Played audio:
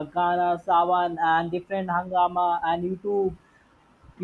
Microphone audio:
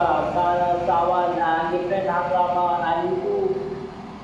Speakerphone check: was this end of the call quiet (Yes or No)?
Yes